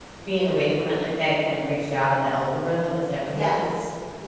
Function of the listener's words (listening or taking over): taking over